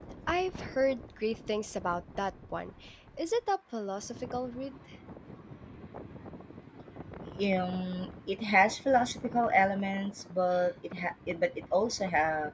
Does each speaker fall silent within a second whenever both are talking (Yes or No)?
Yes